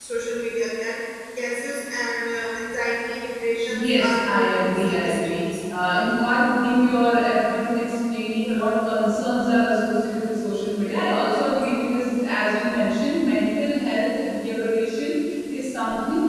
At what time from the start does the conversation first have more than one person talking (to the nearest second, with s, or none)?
4 s